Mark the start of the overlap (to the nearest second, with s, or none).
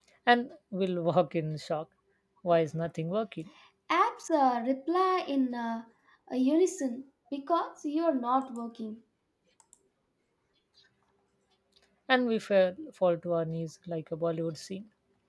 none